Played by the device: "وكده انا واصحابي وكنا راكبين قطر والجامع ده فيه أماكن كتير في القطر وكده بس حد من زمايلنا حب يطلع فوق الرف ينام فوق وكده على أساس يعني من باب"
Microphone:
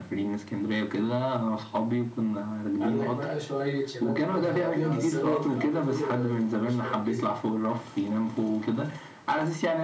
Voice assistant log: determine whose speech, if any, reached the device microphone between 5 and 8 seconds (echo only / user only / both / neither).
both